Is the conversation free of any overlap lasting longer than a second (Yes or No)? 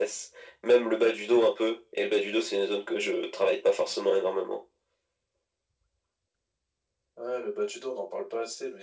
Yes